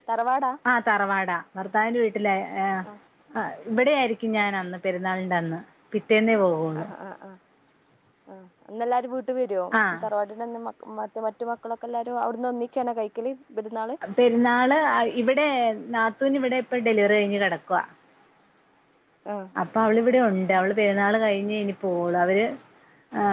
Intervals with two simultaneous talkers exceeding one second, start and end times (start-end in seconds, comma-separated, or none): none